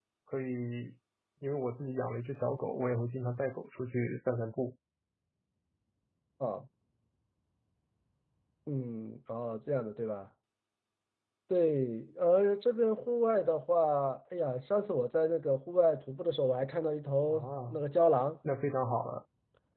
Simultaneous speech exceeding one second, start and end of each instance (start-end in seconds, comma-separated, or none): none